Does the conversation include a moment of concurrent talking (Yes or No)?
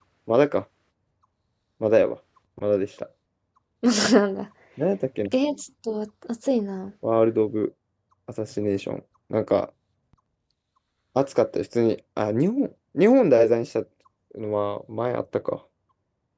No